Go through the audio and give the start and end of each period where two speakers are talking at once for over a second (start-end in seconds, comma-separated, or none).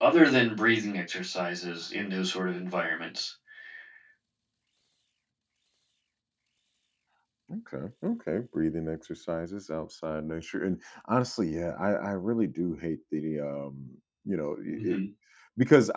none